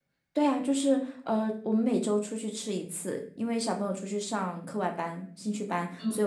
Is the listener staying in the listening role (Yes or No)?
Yes